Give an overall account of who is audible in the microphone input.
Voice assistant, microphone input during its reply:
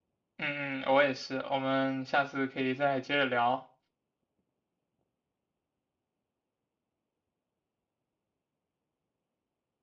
user only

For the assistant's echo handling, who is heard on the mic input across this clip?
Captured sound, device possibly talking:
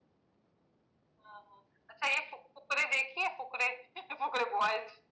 echo only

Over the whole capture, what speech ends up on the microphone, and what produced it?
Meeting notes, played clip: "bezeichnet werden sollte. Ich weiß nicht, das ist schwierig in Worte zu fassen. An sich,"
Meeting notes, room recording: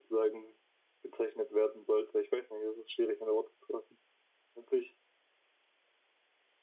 echo only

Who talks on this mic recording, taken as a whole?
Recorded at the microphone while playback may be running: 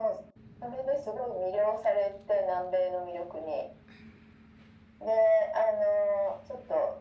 echo only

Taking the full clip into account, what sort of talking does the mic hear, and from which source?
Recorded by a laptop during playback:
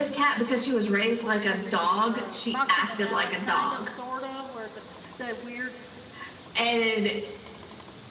both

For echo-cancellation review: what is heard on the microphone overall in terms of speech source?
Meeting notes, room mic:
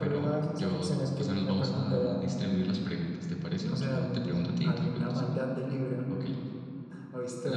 echo only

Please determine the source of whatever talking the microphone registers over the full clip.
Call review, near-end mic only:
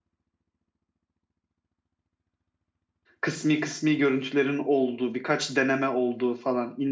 user only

